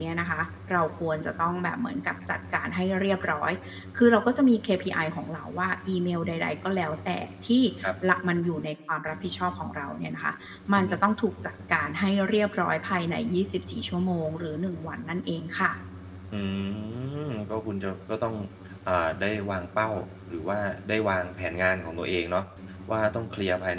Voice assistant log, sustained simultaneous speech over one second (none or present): none